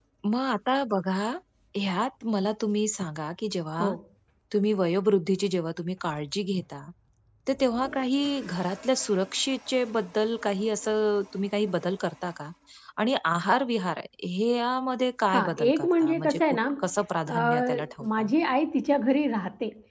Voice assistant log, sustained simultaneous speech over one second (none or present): present